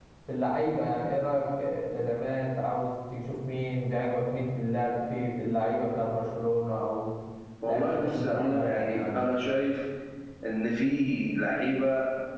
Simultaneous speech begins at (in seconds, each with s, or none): 7.7 s